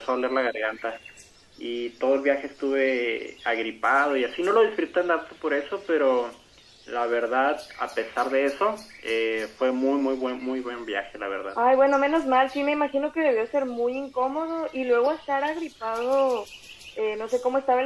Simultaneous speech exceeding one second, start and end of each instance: none

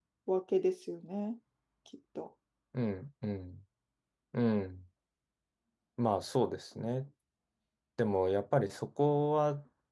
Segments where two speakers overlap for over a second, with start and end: none

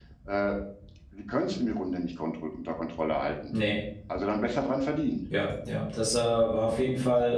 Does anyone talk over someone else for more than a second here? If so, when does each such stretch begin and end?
none

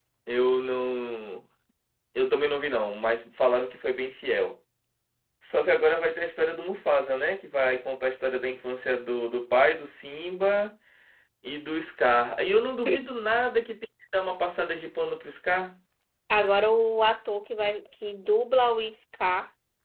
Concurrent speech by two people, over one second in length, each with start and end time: none

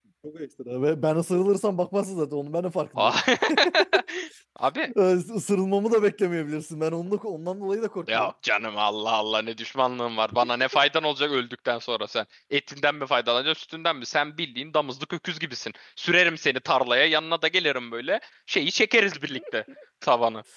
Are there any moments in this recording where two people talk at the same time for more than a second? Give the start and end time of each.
none

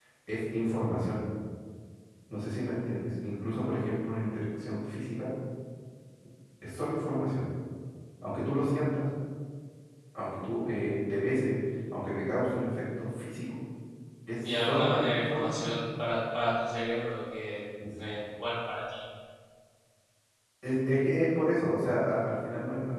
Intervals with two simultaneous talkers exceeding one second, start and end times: 14.4-15.7

